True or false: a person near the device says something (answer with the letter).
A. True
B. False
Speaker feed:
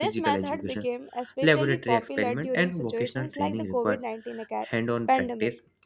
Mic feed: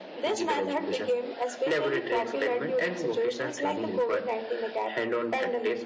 B